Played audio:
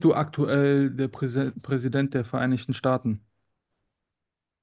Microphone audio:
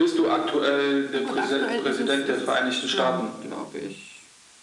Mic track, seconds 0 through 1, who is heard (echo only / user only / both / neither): echo only